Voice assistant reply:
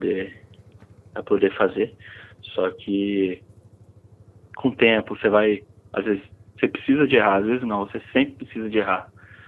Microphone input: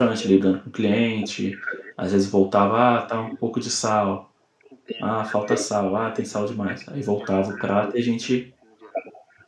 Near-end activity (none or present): present